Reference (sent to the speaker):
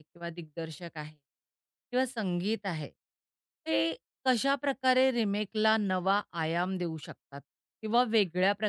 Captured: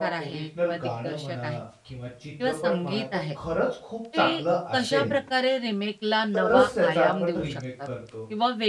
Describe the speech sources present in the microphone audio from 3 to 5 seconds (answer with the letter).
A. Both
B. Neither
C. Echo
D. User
A